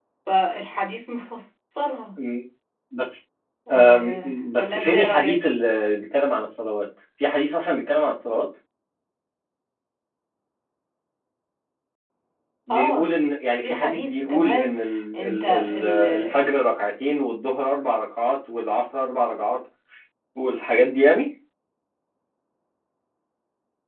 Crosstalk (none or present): present